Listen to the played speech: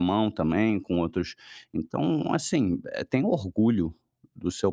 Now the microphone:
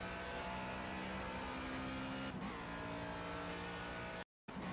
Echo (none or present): none